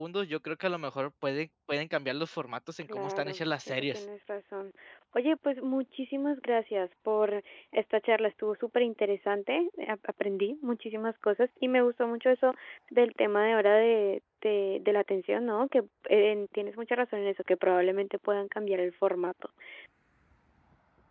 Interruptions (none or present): present